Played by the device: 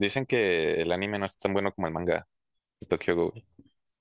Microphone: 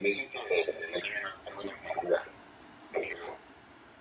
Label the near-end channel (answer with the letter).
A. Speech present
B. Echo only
B